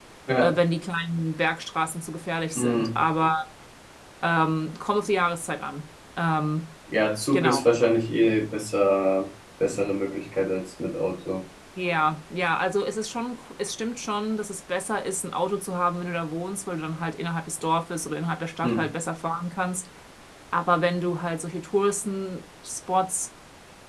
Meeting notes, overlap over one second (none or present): none